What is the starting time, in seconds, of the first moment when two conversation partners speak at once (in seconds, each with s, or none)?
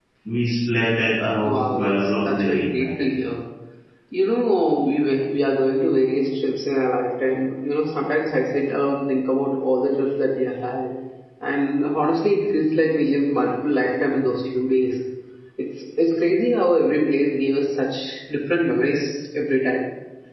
1.4 s